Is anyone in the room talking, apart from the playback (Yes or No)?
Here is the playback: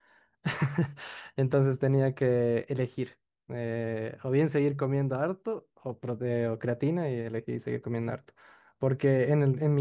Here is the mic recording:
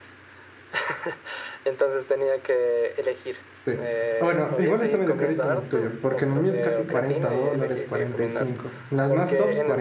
Yes